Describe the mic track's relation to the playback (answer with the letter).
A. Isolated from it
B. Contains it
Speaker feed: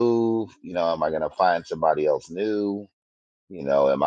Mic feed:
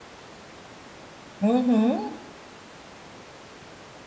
A